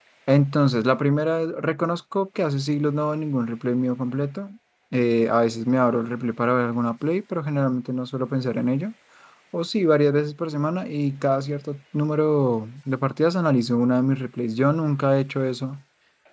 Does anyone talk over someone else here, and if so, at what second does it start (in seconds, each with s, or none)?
none